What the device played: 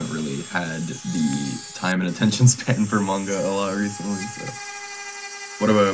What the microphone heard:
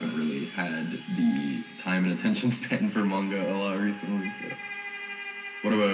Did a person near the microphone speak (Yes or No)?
No